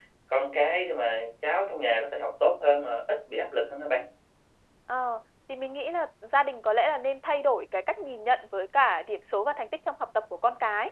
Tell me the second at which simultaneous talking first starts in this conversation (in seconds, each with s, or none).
none